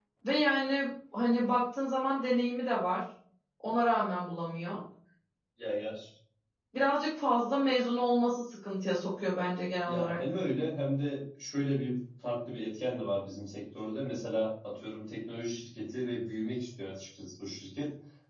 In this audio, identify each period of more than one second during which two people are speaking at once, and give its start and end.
none

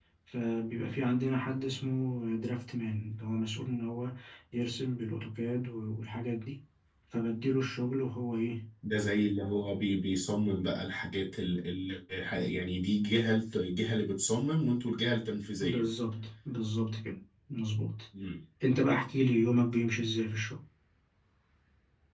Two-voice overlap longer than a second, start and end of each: none

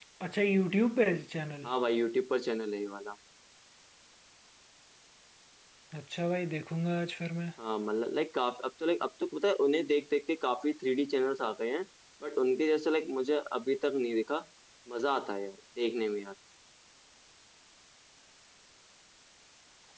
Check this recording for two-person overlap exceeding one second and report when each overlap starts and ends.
none

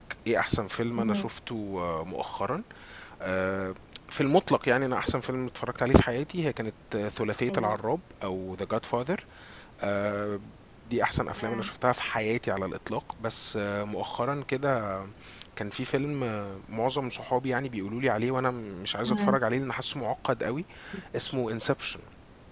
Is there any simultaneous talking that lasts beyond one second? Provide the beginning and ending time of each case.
none

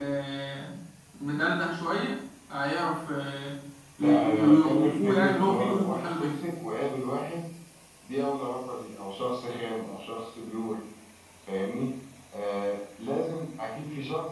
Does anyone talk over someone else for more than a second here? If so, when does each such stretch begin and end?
4.0-6.4

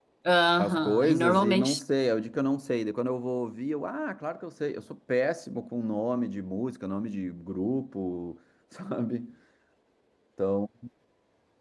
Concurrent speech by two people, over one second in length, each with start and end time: 0.6-1.8

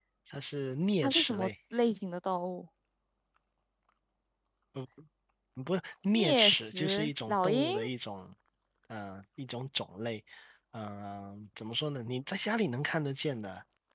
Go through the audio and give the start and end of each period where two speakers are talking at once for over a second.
6.1-7.7

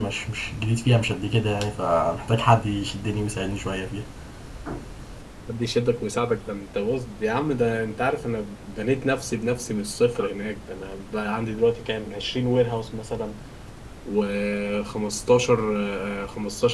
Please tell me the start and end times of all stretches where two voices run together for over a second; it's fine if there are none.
none

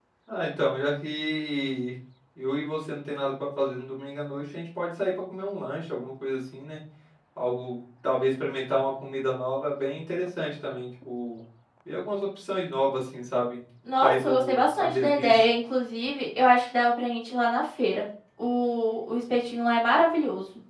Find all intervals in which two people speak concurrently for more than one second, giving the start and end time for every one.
14.0-15.3

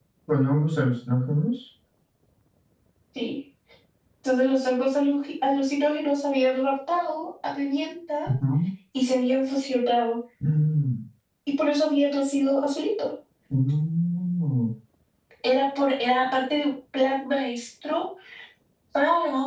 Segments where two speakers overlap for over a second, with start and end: none

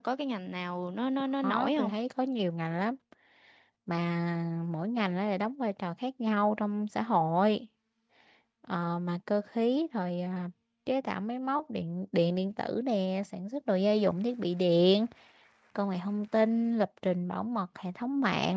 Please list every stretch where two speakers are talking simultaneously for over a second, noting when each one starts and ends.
none

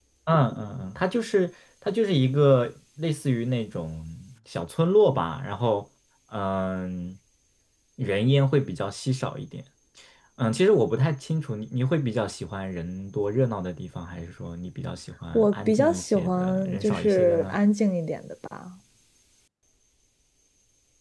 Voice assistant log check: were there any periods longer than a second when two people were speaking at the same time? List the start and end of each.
15.3-17.6

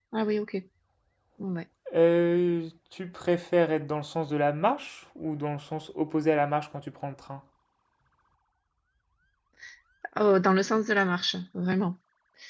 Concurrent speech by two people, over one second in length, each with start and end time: none

